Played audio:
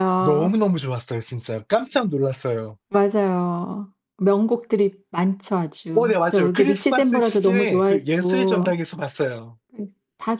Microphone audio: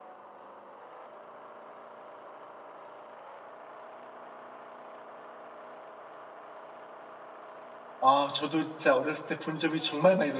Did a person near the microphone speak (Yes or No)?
Yes